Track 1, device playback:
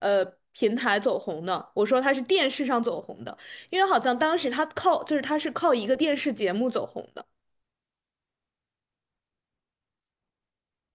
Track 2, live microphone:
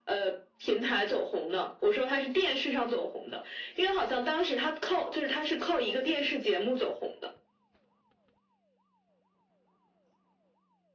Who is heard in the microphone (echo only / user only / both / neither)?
echo only